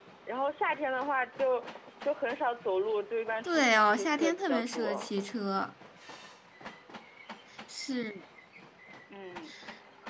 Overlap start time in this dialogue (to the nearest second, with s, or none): 3 s